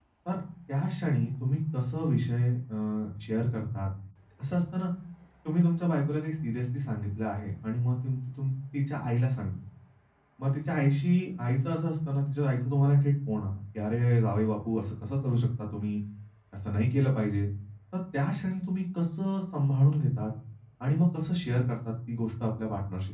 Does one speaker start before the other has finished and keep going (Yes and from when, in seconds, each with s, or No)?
No